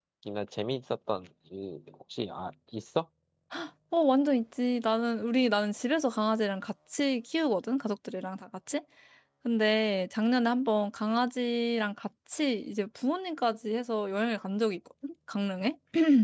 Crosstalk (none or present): none